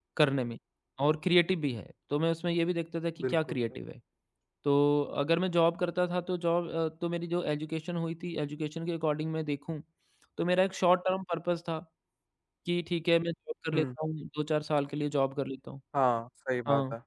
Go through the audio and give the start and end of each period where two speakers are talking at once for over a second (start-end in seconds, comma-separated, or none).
none